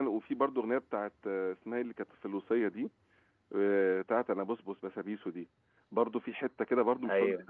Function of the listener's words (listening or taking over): listening